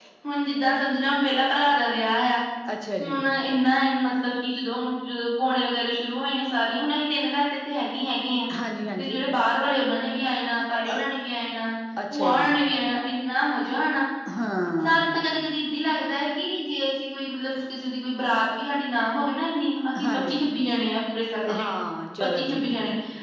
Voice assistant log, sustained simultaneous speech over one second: none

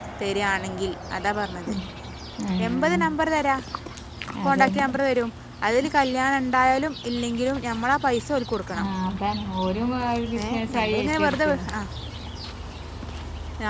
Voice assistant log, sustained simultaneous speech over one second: present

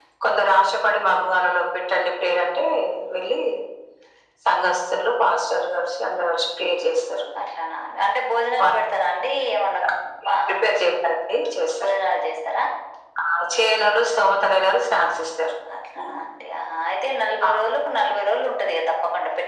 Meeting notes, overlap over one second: none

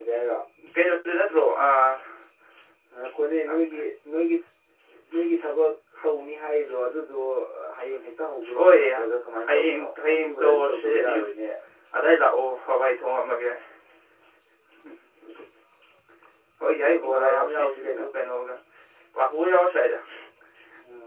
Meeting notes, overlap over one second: present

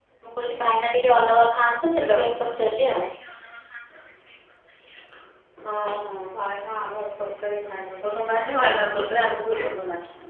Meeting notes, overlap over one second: none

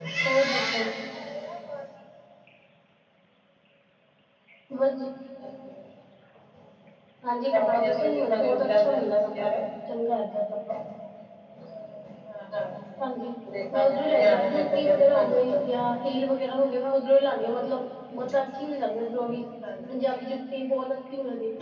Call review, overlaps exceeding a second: present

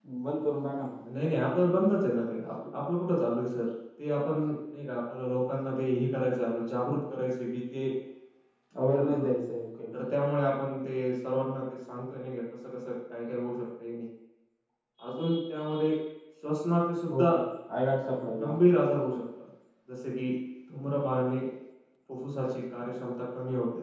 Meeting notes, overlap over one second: none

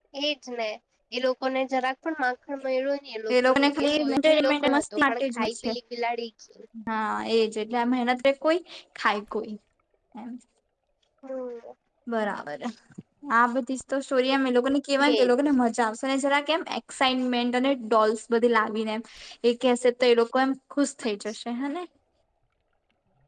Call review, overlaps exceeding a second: present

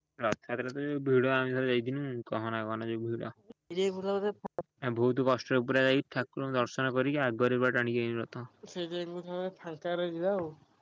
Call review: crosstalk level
none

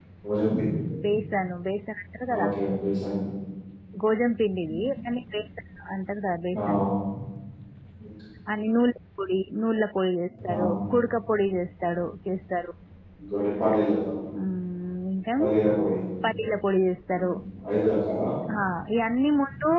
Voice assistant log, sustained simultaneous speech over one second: none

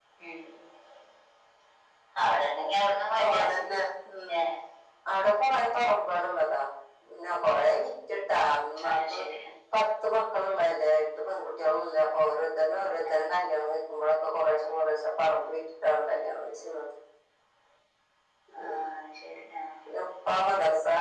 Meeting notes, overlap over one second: none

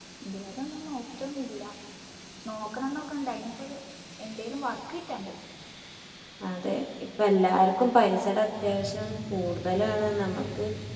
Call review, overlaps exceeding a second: none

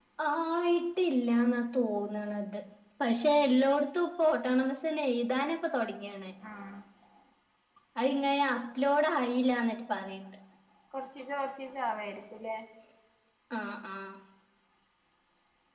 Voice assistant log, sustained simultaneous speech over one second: none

